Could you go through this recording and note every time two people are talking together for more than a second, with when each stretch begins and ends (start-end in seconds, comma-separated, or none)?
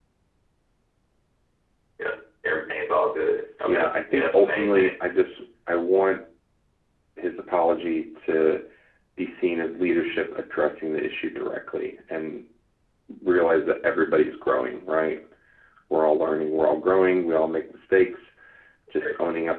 3.7-4.9